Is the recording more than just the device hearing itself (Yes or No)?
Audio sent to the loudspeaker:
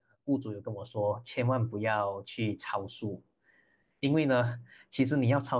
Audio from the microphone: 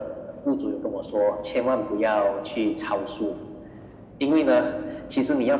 No